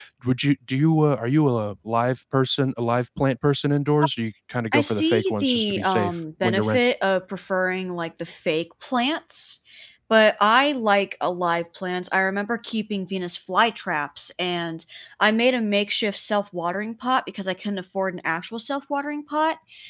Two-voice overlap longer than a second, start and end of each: 4.7-6.9

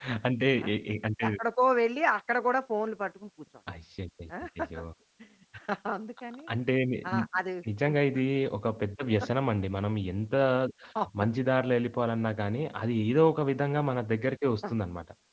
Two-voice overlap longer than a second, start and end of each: none

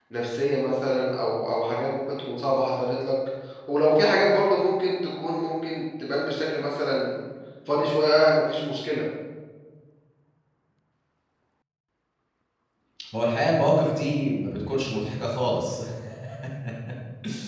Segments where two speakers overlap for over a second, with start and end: none

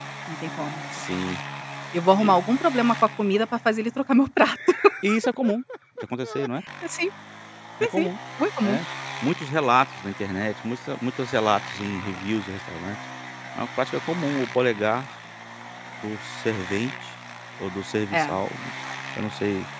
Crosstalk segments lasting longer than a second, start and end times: none

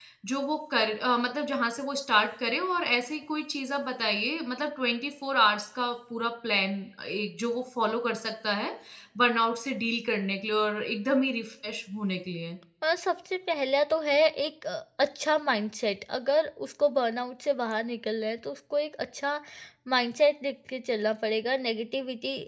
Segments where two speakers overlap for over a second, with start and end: none

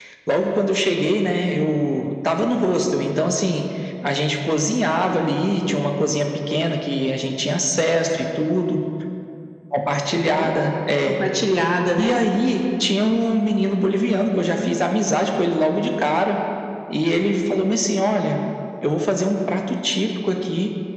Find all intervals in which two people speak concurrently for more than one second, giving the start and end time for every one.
none

